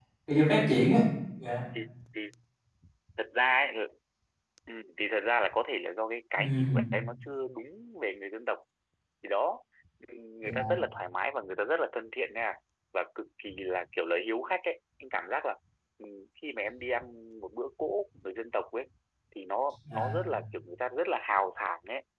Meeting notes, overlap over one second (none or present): none